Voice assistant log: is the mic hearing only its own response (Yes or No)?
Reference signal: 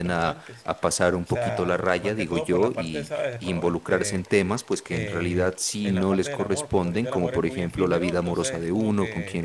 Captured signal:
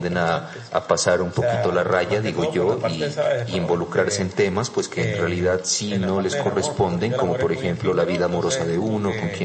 Yes